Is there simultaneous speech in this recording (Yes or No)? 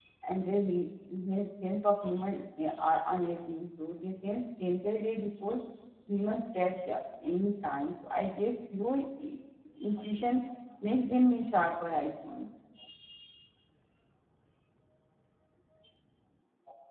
No